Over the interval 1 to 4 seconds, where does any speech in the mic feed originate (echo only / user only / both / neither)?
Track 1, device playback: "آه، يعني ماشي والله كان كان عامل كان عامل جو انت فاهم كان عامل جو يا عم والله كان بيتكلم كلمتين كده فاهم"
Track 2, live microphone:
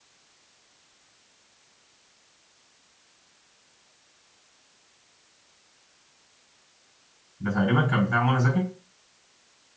neither